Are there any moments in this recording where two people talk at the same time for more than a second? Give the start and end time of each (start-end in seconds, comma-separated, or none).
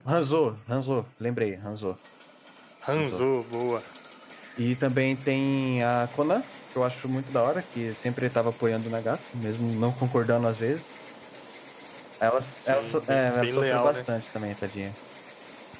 12.7-14.0